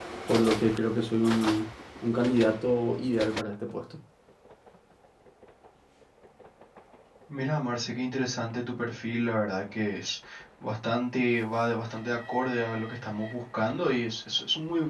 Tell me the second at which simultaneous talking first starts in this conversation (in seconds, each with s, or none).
none